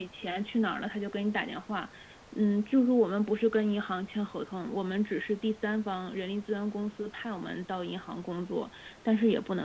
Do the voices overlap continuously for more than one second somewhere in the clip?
No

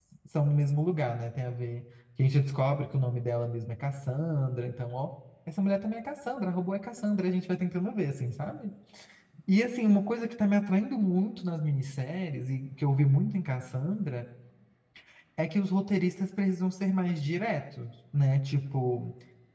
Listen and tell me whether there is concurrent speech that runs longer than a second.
No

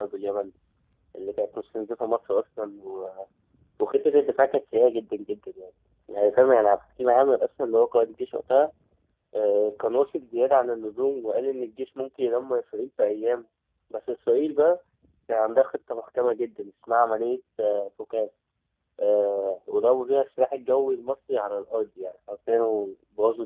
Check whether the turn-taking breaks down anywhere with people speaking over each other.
No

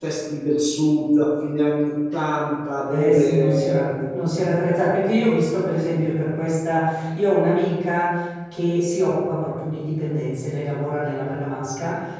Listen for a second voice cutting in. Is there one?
Yes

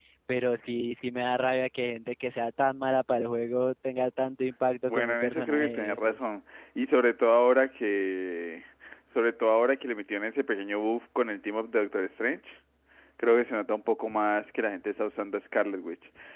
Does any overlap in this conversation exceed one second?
Yes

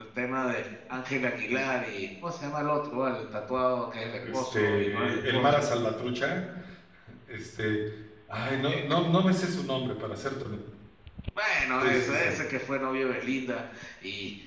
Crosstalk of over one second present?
Yes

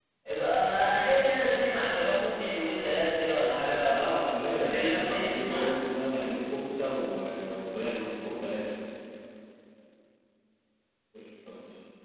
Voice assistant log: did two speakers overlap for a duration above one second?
Yes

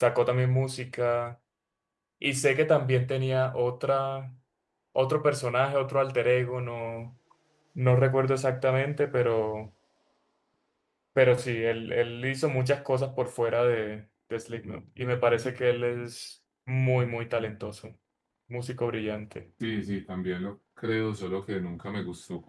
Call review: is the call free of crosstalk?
Yes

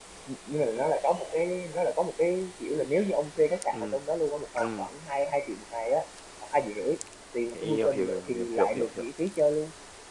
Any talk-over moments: Yes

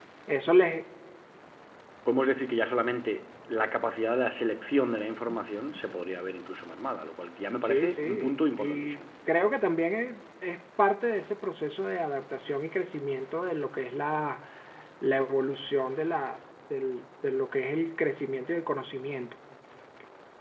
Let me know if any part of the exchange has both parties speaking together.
Yes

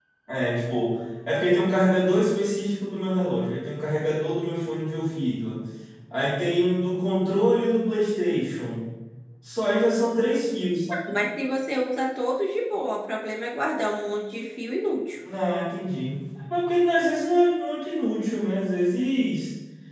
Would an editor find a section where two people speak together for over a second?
No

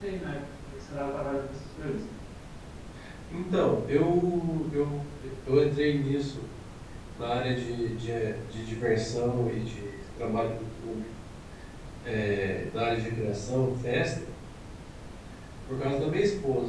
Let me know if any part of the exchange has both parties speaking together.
No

